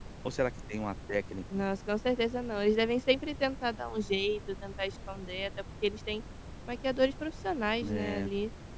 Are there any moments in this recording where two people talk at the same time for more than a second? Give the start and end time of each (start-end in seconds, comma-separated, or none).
none